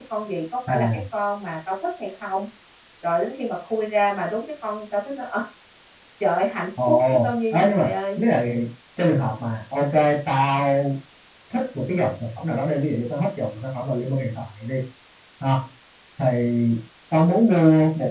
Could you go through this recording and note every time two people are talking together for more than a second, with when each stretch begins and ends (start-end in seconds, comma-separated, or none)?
6.9-8.2